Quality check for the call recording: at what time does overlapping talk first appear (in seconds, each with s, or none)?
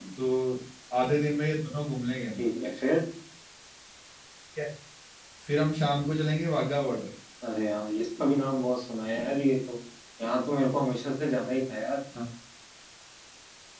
none